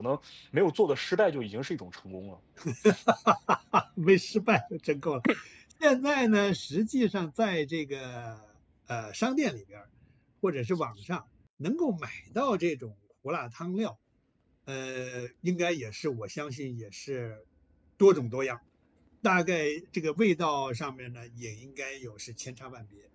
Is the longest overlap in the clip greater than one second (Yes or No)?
No